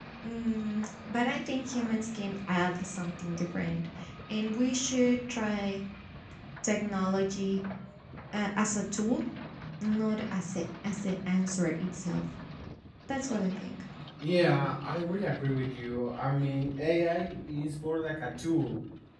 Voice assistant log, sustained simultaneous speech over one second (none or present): none